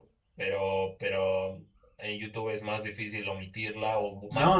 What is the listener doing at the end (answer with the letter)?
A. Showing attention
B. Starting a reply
B